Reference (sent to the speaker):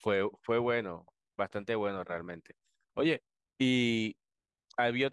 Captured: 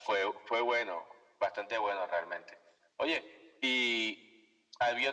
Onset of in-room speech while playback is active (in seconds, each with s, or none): none